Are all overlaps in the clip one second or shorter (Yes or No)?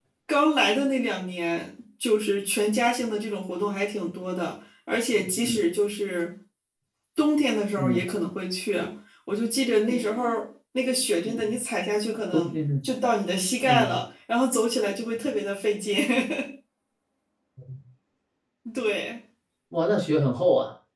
Yes